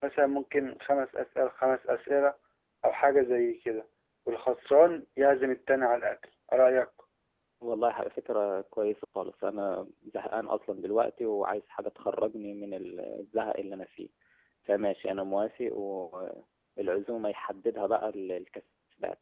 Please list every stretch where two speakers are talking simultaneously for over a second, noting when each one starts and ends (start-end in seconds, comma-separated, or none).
none